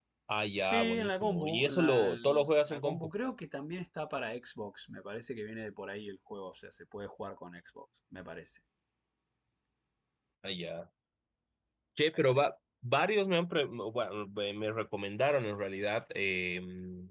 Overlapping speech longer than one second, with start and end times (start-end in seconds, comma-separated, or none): 0.7-3.1